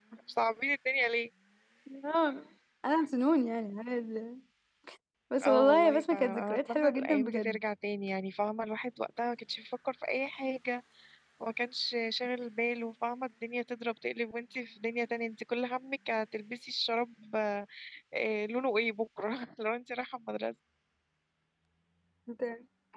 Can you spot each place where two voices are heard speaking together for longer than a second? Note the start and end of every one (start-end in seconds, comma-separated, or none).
5.5-7.6